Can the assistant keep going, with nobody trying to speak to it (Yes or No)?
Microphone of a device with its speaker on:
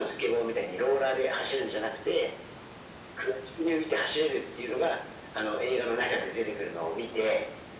Yes